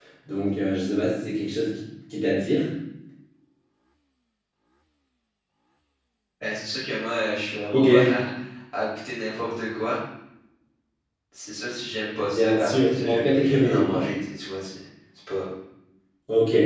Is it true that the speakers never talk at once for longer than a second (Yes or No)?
No